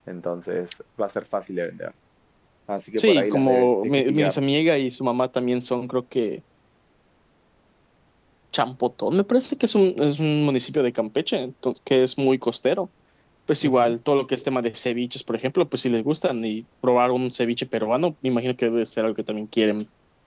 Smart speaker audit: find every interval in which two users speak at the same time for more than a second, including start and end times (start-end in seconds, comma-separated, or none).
3.0-4.4